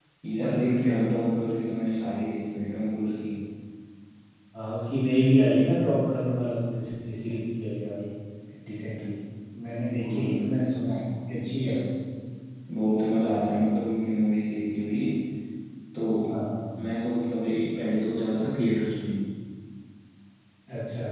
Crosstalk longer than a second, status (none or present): none